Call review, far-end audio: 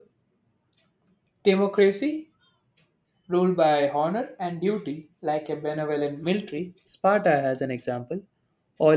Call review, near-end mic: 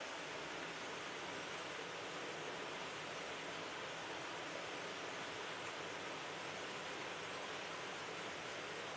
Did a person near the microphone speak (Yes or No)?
No